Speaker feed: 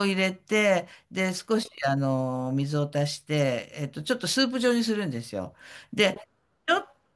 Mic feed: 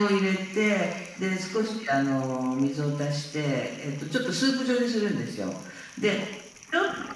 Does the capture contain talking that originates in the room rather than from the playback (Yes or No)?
No